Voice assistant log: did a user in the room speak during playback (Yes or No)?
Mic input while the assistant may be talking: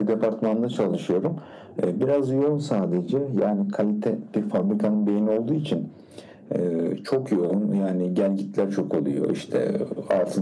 No